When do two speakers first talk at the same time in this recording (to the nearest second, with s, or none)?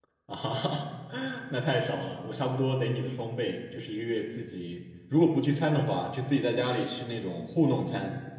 none